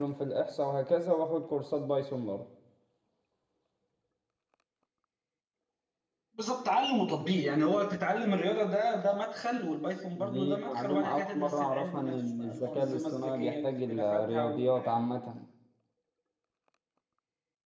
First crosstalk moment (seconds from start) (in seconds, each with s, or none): 10.2 s